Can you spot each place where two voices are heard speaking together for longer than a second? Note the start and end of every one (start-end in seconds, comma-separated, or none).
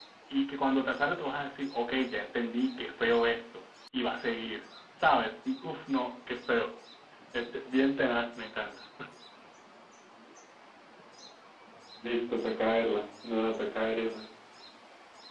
none